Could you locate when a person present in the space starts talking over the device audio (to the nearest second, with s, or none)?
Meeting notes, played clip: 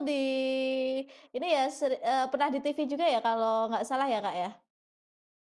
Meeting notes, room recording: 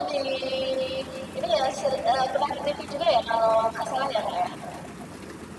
none